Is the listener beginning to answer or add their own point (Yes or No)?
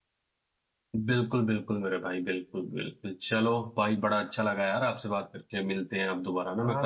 Yes